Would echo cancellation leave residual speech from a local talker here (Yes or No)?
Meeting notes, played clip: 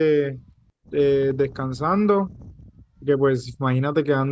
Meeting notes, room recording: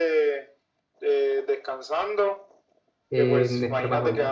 Yes